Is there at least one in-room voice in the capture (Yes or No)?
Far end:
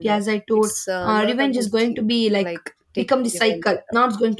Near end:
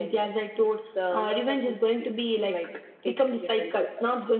No